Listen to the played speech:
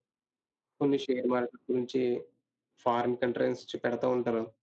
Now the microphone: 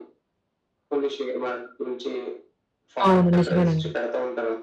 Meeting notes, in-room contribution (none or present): present